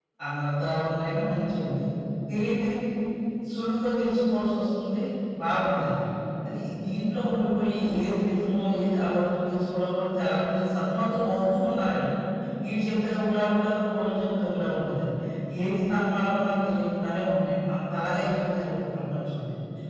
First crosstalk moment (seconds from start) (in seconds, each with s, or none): none